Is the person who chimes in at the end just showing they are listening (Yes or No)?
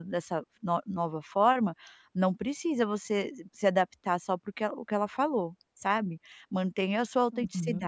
Yes